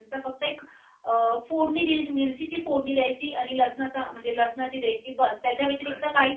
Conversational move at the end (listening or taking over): listening